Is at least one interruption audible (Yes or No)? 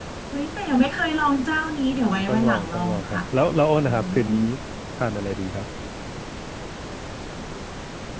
Yes